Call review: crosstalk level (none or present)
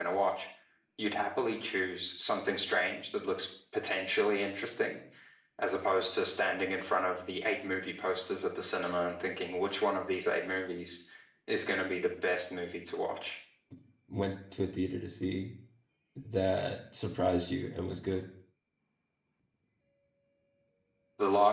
none